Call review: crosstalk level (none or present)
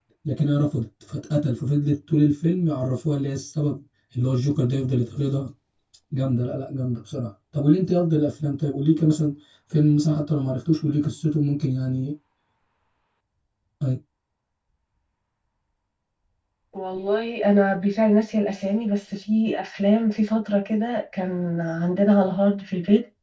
none